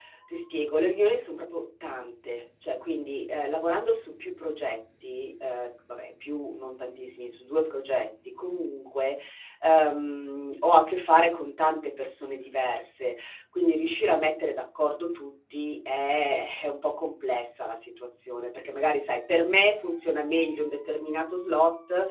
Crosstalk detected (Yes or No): No